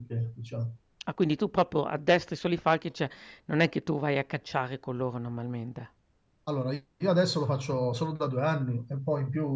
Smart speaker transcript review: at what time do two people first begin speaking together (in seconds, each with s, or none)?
none